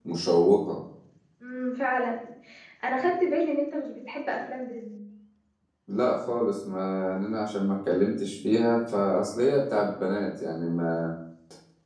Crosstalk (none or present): none